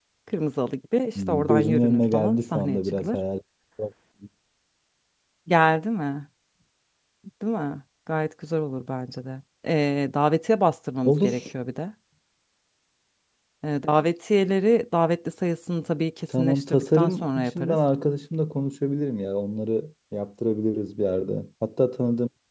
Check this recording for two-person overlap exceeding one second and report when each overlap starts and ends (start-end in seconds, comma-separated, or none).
1.1-3.2, 16.3-17.8